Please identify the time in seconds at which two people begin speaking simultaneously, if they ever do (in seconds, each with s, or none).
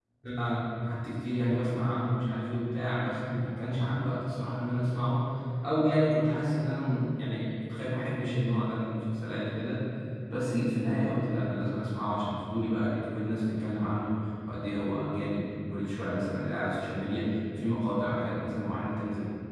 none